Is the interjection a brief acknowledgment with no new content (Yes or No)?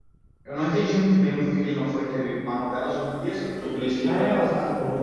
No